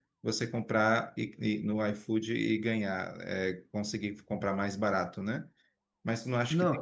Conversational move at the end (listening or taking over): listening